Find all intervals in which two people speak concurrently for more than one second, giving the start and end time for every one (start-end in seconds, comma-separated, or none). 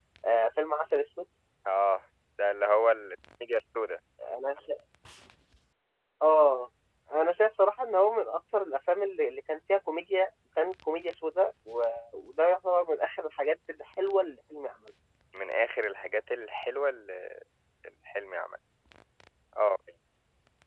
none